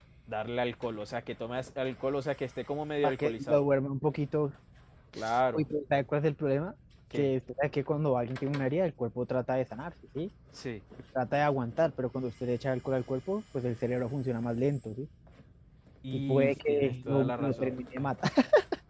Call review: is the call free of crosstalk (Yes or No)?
No